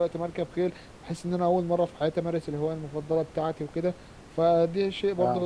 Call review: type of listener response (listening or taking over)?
listening